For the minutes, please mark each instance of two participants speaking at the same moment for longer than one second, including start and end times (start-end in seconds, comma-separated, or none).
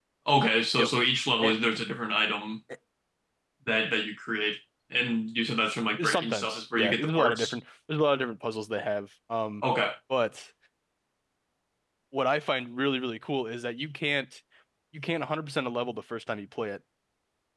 6.0-7.6